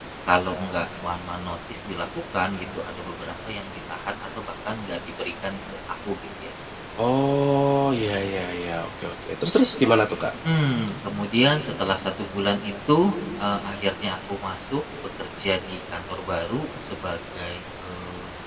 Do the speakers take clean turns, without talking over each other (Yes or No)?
Yes